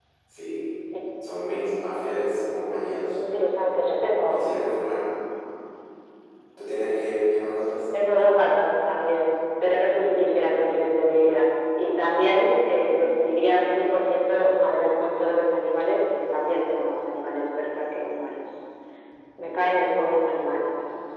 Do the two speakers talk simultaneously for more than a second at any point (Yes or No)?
No